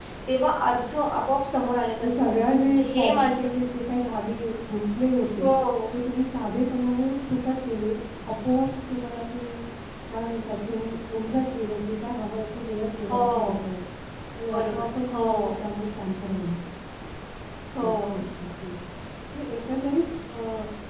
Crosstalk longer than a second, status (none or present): present